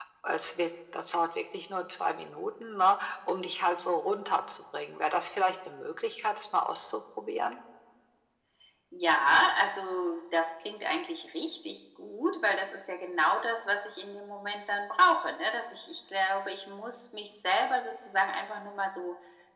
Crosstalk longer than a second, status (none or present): none